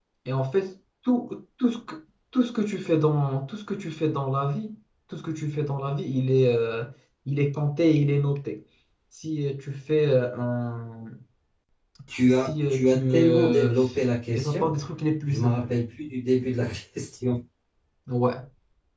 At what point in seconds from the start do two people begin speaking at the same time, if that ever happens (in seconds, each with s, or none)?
12.4 s